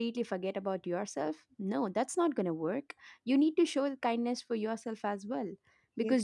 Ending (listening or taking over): listening